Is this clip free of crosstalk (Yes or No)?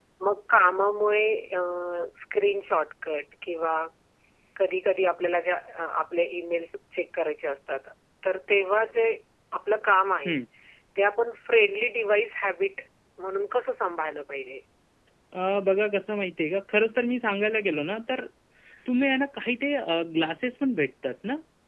Yes